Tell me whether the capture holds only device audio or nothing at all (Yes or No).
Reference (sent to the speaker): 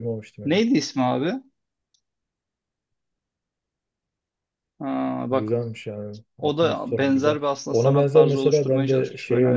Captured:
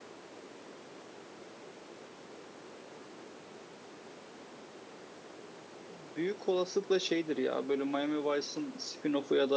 No